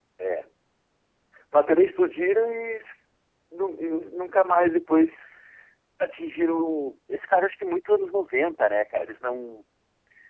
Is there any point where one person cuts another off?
No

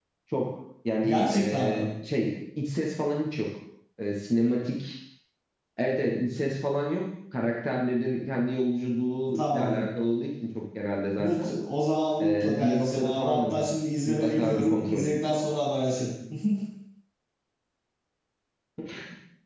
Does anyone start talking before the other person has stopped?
Yes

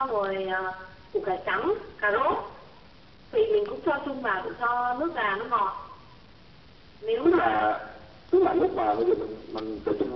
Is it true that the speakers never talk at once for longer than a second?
Yes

